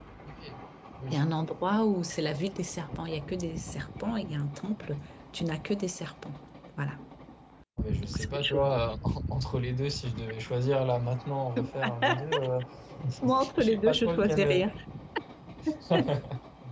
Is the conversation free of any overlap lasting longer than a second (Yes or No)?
No